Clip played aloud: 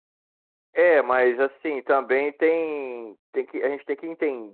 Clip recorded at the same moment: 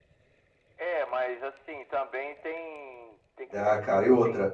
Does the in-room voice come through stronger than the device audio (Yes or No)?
Yes